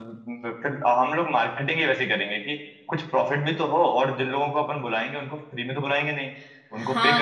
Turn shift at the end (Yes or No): Yes